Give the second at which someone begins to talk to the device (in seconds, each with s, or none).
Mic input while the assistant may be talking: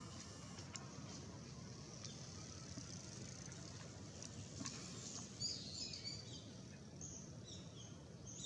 none